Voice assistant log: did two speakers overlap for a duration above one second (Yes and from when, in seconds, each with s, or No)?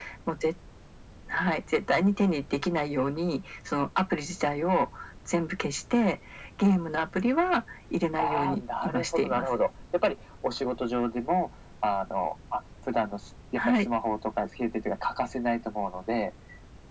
Yes, from 8.2 s